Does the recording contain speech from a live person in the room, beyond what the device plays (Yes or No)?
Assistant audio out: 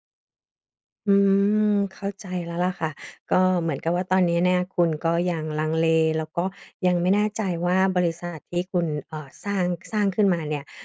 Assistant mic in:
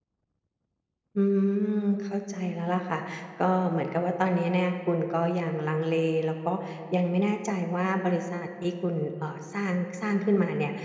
No